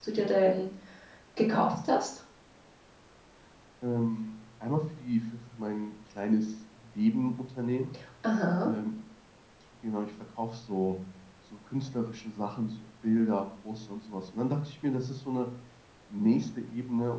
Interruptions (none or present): none